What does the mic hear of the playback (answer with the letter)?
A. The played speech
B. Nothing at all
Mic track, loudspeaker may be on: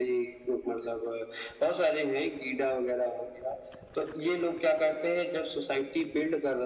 A